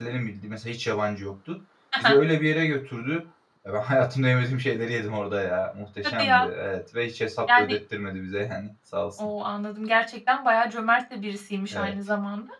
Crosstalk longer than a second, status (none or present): none